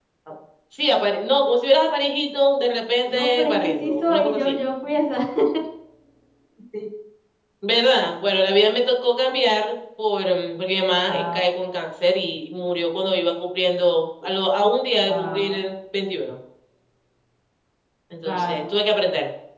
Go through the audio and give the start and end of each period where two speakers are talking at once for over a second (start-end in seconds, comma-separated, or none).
3.1-4.6